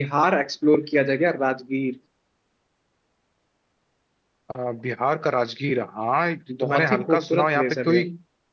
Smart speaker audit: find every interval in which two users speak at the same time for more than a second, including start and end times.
6.6-8.0

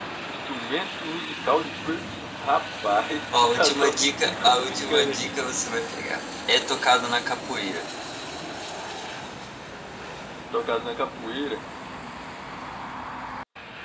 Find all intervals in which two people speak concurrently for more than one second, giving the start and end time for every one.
3.3-5.2

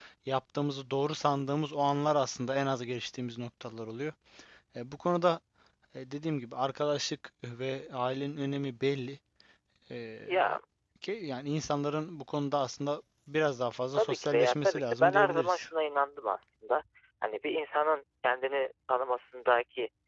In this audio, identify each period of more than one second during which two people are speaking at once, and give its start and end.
13.9-15.7

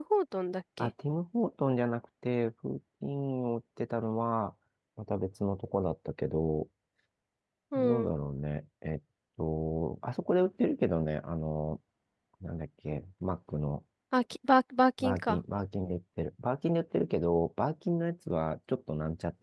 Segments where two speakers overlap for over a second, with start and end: none

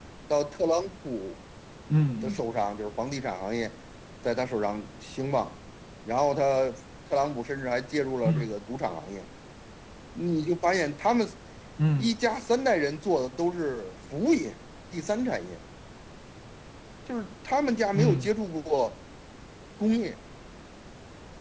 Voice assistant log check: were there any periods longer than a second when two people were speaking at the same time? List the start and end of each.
none

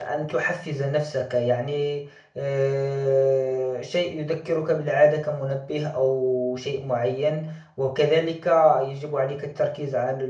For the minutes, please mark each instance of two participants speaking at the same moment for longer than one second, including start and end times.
none

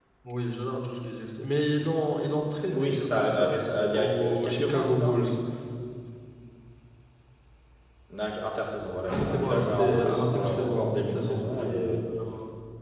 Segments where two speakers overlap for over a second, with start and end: 2.7-5.1, 9.1-11.9

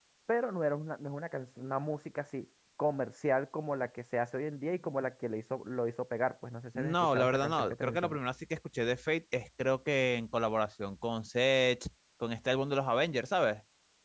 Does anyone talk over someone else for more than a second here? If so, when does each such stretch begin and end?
6.8-8.2

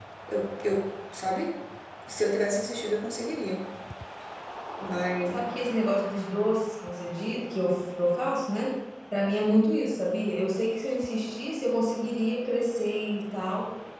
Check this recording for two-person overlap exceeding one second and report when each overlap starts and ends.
none

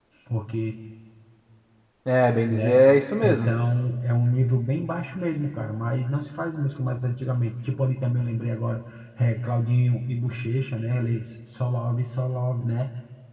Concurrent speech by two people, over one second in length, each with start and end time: none

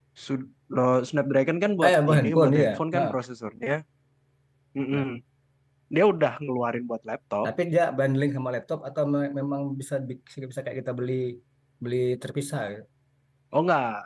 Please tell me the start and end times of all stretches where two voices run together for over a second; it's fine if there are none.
1.8-3.2

